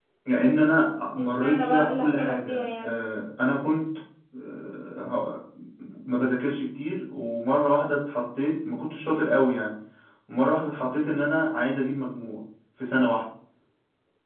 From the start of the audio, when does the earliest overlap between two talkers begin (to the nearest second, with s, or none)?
1 s